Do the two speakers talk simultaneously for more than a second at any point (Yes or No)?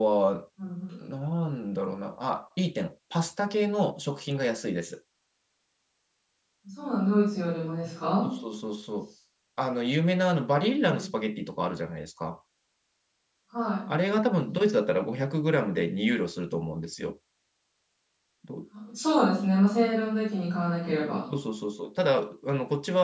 No